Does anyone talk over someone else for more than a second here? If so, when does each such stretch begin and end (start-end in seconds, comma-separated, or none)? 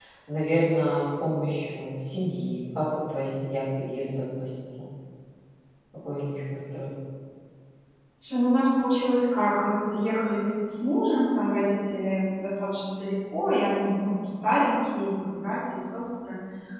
none